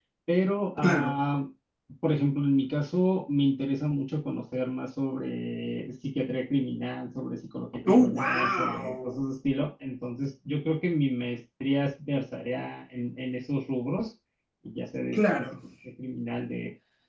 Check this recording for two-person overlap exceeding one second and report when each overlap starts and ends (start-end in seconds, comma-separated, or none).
7.9-9.2